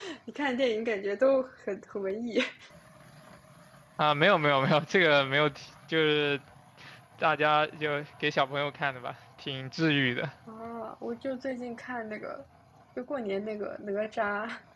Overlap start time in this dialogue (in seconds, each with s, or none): none